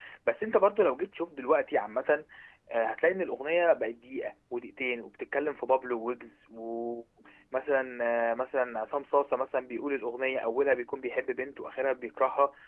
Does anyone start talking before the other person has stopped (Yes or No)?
No